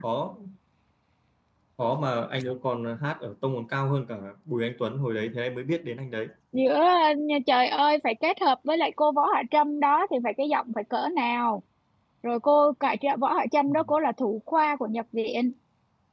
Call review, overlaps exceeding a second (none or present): none